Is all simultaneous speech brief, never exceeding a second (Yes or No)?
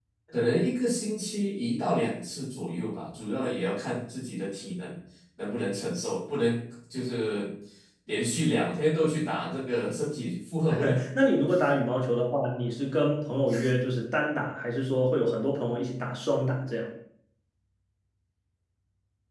Yes